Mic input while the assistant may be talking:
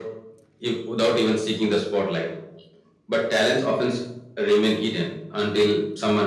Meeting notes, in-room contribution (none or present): none